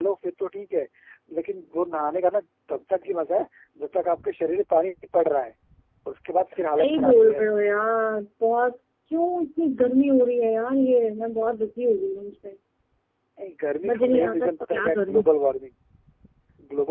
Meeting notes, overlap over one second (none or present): present